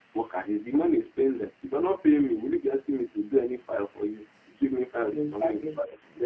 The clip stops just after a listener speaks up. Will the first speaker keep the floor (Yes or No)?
Yes